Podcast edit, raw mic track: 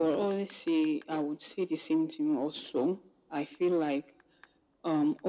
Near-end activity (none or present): none